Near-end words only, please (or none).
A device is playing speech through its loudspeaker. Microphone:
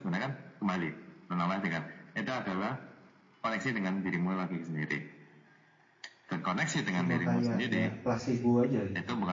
cuma kayak ya placebo aja gitu?